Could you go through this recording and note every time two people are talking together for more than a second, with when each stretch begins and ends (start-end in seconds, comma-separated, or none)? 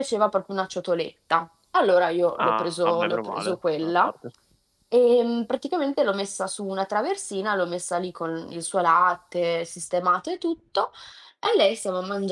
2.4-4.1